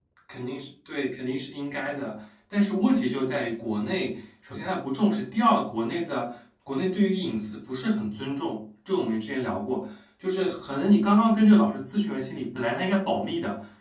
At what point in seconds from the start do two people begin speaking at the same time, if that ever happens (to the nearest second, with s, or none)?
none